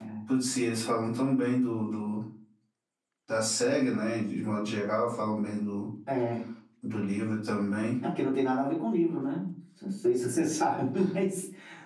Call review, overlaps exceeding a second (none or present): none